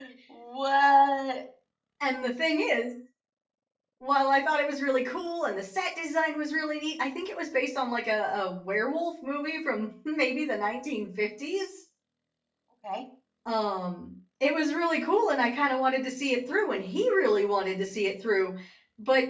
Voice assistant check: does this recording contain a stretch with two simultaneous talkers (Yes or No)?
No